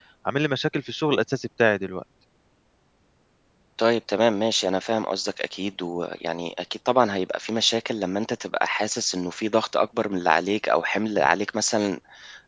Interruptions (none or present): none